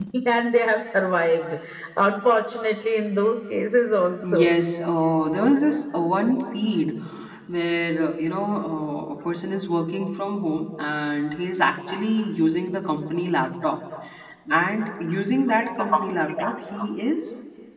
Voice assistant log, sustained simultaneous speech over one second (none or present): none